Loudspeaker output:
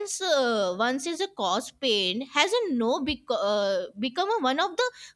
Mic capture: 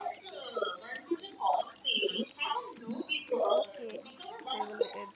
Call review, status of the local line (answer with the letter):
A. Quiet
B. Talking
B